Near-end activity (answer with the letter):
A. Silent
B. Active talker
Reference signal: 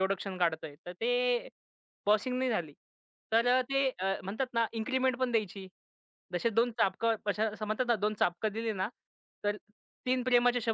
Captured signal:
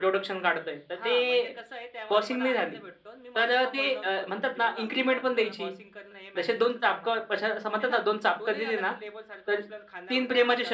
B